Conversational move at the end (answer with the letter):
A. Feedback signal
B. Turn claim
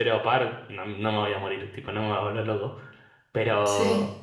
A